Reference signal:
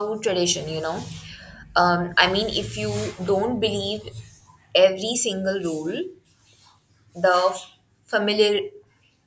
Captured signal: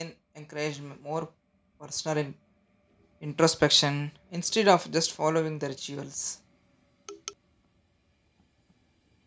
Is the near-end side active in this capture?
Yes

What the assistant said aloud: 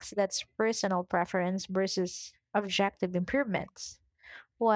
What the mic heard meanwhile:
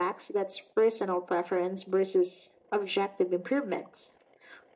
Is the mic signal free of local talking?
Yes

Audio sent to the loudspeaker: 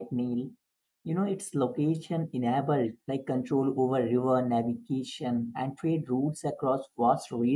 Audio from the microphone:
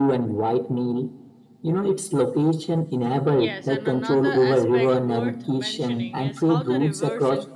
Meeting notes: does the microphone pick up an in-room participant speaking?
Yes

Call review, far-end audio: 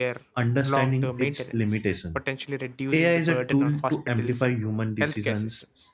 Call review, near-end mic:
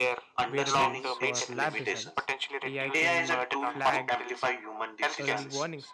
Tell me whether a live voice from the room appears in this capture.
Yes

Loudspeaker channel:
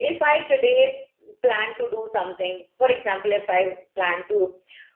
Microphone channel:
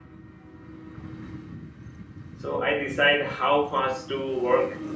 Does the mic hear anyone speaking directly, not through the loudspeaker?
Yes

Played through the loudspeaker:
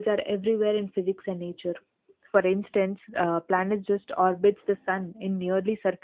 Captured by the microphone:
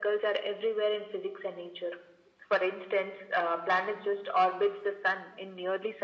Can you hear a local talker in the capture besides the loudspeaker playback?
No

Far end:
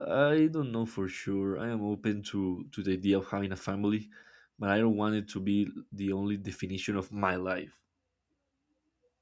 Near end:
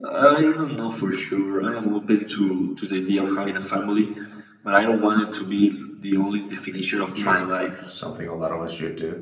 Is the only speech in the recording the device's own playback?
No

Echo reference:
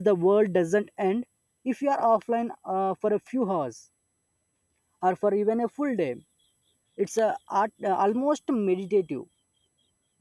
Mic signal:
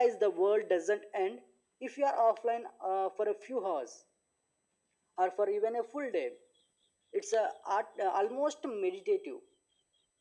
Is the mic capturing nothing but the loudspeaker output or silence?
Yes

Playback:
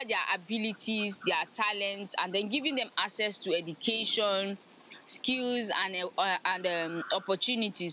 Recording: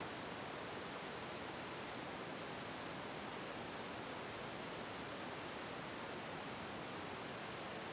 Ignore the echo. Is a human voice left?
No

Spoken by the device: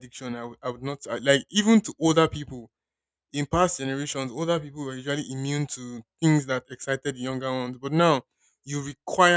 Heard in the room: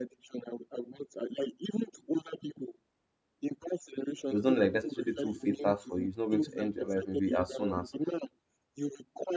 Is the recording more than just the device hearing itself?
Yes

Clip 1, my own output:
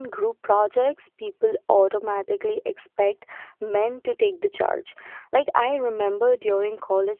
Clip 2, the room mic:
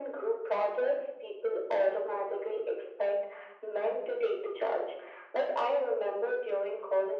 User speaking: No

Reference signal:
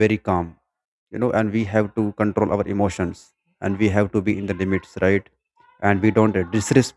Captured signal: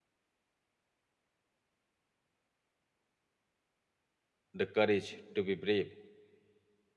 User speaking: Yes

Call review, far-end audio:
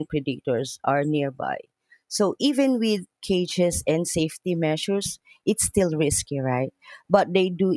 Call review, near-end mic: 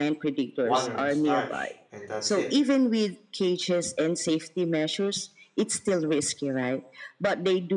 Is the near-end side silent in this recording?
No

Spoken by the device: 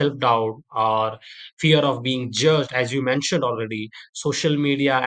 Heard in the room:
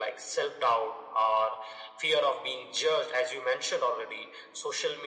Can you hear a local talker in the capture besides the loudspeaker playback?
No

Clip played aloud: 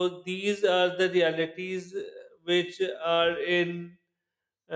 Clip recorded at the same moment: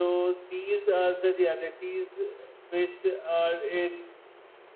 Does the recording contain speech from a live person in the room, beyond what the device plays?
No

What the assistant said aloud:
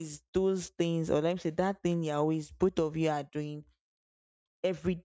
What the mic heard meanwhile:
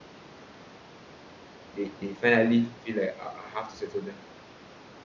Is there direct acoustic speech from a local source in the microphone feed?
Yes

